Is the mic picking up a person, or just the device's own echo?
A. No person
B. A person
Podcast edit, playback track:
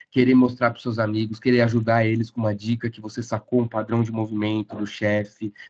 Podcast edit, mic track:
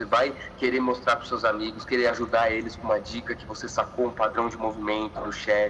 A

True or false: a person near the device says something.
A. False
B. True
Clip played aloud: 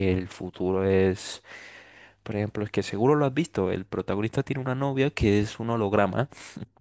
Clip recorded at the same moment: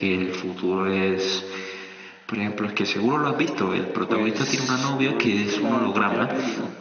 B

